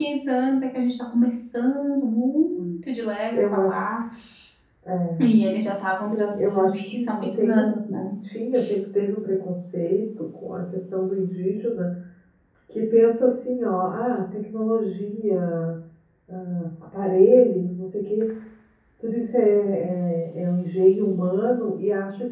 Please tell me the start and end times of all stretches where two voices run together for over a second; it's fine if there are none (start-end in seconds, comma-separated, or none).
6.1-7.8